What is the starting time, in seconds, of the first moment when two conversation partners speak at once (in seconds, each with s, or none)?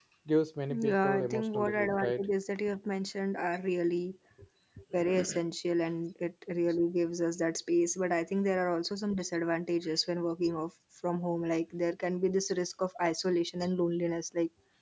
0.8 s